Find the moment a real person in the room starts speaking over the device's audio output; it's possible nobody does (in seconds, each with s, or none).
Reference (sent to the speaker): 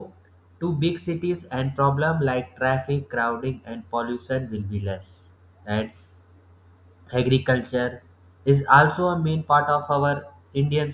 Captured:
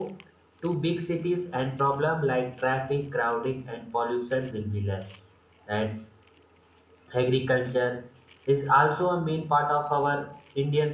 none